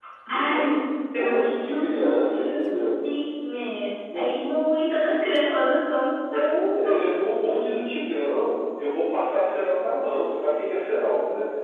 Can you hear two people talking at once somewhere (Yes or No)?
Yes